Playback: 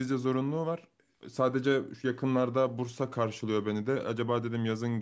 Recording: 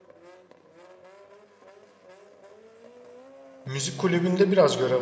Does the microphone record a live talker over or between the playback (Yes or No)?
Yes